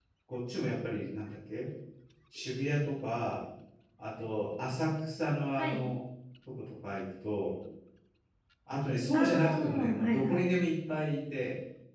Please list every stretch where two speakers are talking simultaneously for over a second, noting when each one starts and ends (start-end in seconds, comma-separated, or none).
9.1-10.6